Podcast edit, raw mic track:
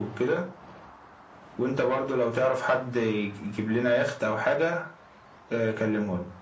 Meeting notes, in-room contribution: none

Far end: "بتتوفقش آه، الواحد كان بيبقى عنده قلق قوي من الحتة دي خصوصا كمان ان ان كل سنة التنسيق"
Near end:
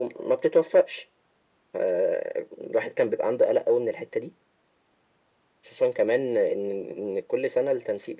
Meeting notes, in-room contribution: none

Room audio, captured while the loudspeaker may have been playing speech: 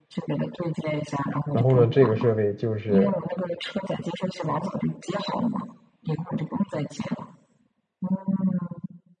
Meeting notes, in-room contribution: present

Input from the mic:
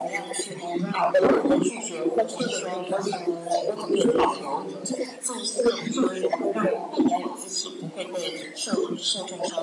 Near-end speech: none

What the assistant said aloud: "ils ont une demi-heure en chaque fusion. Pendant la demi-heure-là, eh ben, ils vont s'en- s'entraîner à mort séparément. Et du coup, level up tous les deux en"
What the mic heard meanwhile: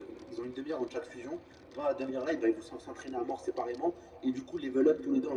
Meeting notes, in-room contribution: none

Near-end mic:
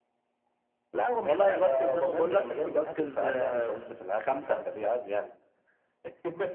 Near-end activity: present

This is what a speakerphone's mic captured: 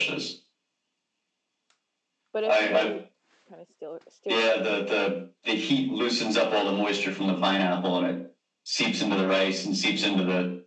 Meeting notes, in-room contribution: present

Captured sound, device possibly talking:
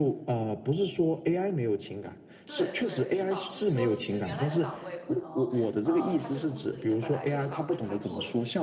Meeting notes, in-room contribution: present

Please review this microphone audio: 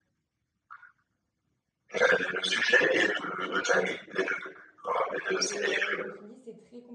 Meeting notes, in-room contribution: present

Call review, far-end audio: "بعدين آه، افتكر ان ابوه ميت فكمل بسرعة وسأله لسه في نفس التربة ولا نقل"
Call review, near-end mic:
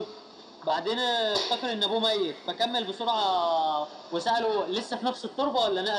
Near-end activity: none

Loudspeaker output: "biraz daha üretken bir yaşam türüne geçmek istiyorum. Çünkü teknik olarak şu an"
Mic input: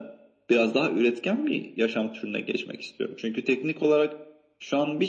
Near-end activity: none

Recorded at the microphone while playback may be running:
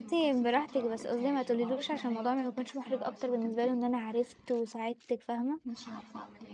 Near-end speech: present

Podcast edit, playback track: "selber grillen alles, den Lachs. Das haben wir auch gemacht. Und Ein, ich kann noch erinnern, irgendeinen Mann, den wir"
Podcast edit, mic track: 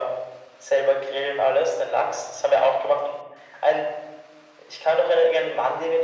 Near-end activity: none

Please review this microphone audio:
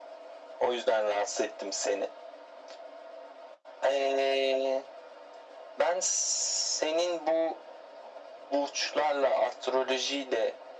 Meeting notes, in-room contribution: none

